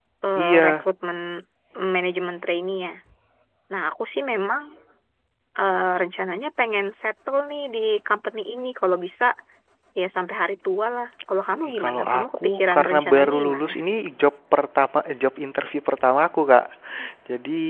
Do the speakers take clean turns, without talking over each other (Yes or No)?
No